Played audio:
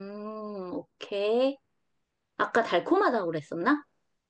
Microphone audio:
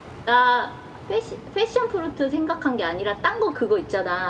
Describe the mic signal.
user only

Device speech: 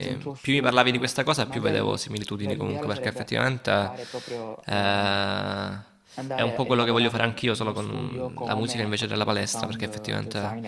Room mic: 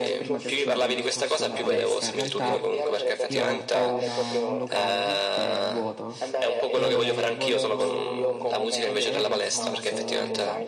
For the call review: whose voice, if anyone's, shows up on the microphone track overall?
both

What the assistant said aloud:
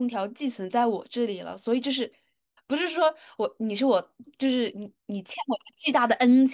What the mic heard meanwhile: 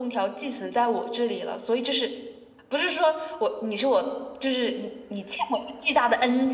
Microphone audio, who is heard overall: echo only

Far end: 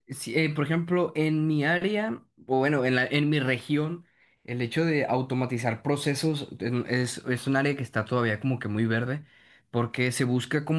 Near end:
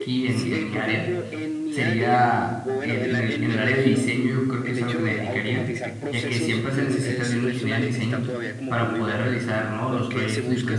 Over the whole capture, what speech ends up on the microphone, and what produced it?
both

